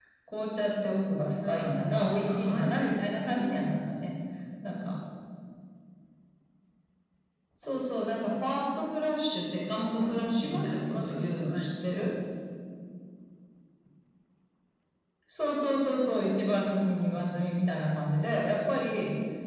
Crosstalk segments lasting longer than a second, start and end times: 1.4-4.1, 10.0-12.1

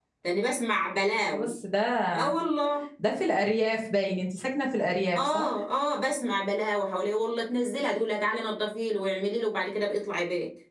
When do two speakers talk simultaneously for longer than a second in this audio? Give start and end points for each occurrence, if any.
none

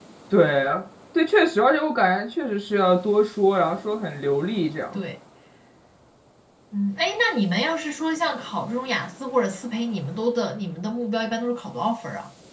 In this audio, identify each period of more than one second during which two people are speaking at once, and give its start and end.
none

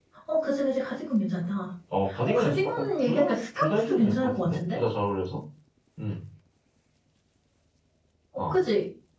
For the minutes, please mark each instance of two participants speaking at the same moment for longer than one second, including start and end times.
2.3-4.8

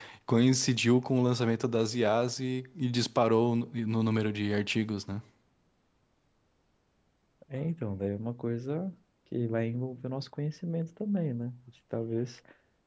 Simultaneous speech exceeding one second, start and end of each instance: none

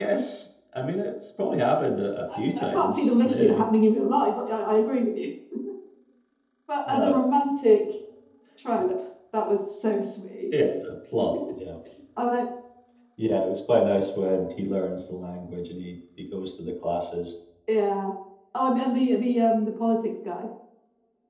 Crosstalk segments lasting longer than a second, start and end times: 2.4-3.6

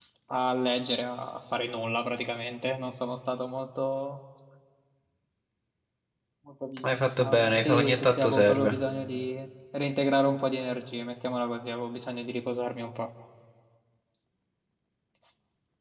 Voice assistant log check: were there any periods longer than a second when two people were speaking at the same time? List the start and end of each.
6.8-8.7

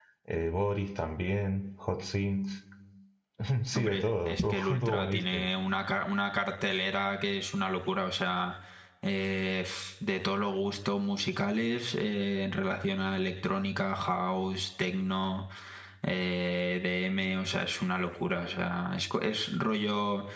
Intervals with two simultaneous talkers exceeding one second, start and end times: 3.7-5.5

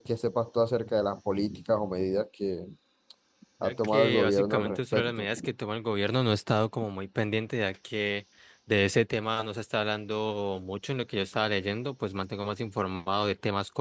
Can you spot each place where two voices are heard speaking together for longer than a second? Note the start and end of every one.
3.6-5.2

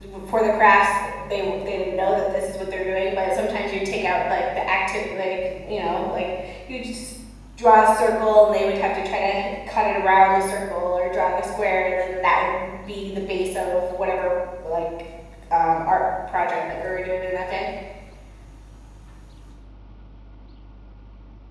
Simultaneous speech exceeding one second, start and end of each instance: none

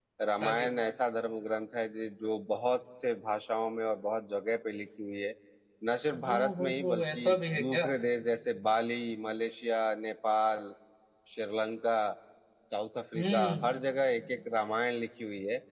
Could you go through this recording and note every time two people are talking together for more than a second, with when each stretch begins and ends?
6.2-7.9

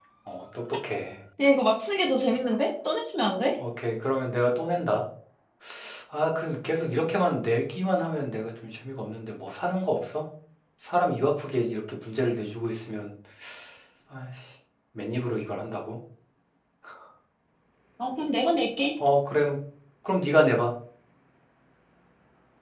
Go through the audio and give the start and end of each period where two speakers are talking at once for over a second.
none

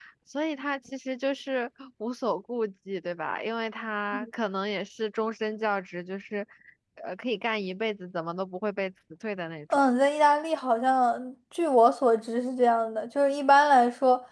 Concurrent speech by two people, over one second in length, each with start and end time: none

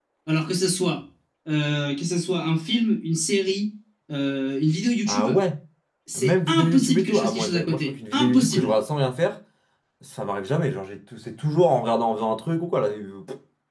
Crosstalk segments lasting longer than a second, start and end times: 6.2-8.8

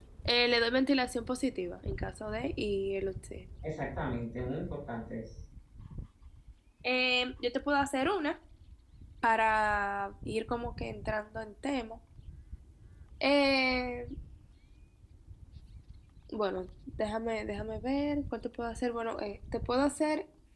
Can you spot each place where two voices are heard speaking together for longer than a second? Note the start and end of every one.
none

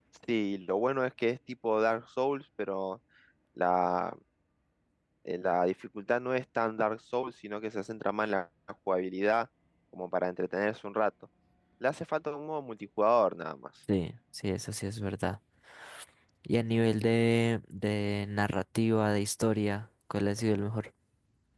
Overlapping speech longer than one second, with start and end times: none

